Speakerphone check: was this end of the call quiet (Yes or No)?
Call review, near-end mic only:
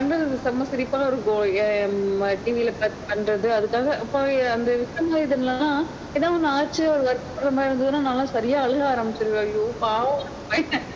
Yes